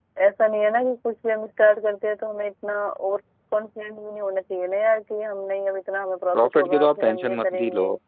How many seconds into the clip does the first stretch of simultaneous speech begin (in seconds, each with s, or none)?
6.3 s